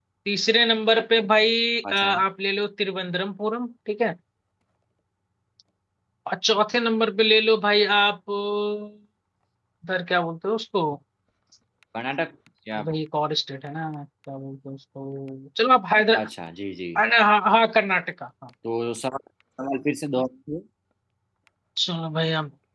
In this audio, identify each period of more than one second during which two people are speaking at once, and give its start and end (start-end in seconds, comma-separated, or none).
none